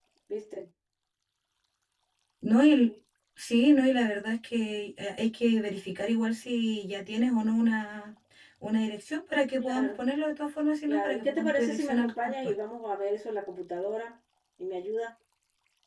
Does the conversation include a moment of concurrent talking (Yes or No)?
Yes